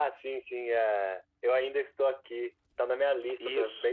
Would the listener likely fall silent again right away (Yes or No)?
Yes